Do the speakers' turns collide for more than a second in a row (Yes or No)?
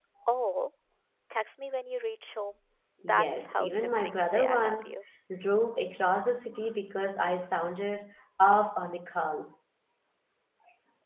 Yes